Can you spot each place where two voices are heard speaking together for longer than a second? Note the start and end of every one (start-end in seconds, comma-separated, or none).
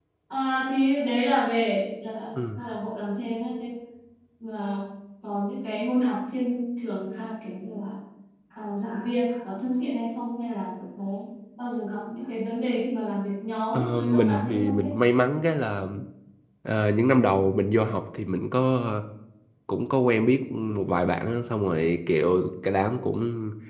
13.7-14.9